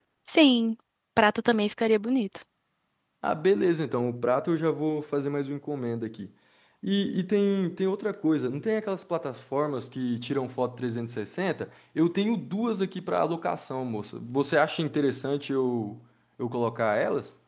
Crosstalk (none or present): none